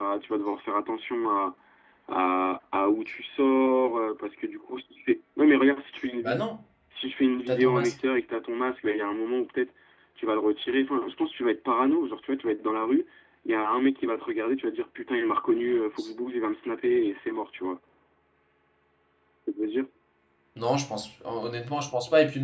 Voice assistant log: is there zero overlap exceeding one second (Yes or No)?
Yes